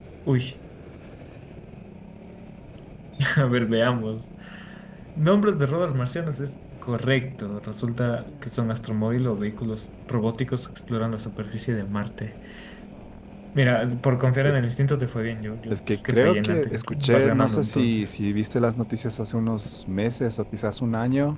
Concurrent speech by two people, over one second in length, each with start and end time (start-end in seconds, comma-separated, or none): 15.7-18.1